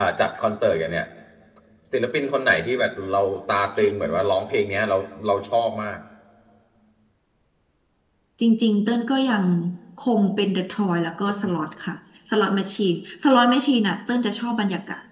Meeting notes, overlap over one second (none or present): none